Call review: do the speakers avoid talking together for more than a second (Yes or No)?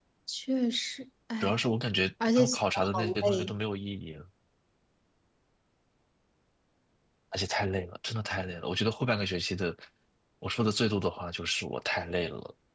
No